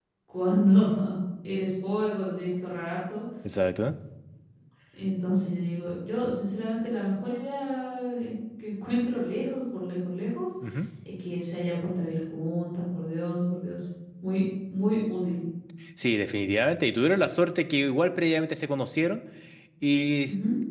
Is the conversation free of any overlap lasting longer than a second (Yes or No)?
Yes